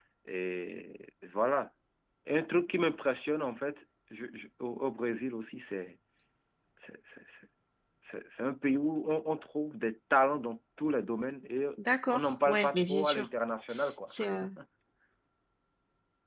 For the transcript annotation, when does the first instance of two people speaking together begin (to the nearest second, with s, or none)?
12 s